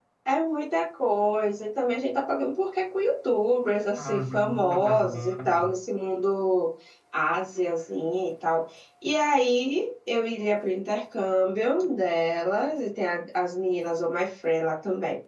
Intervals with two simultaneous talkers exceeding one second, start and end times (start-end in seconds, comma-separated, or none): 4.0-5.7